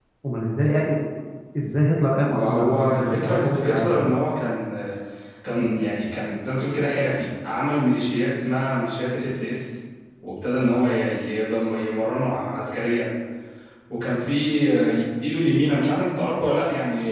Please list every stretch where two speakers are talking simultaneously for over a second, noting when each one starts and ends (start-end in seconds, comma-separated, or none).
2.3-3.9